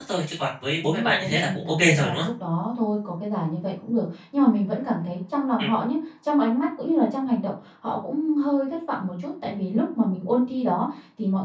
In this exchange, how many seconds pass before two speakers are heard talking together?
0.8 s

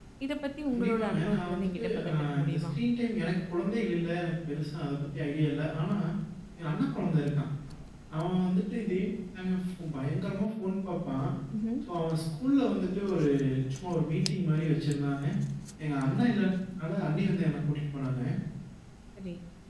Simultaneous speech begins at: 0.7 s

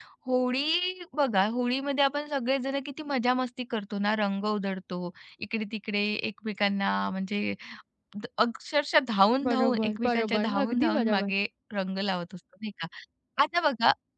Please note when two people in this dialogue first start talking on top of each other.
9.4 s

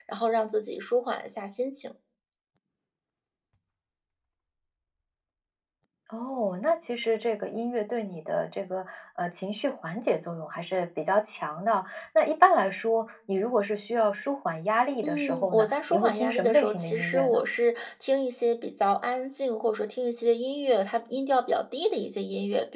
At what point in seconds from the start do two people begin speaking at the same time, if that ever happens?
15.0 s

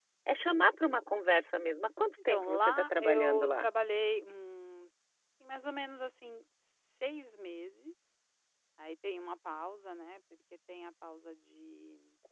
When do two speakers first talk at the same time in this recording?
2.3 s

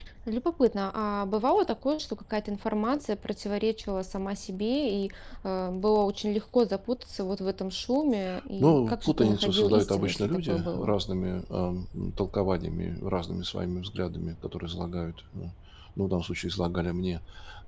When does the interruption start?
8.6 s

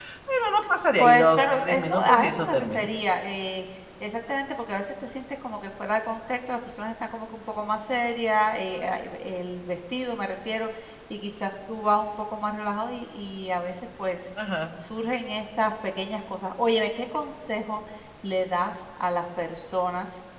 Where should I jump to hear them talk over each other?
1.0 s

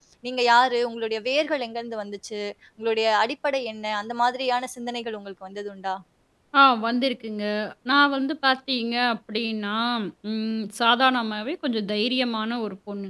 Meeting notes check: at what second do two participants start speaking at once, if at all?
none

